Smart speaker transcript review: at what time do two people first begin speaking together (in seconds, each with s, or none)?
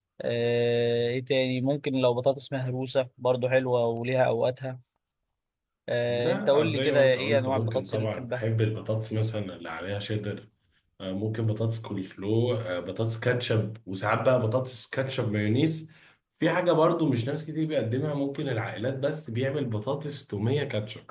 6.1 s